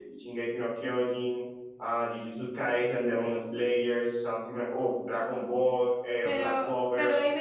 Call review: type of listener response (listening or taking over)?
taking over